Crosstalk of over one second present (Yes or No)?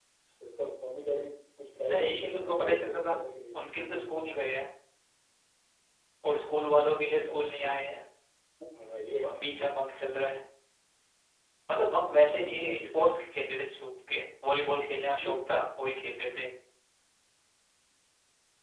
Yes